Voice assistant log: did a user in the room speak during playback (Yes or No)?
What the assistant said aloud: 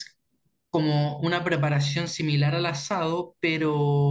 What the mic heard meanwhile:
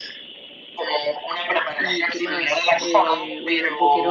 Yes